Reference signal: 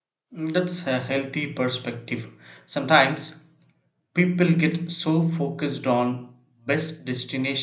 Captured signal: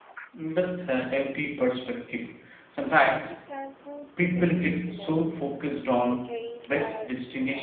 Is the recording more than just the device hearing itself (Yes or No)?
Yes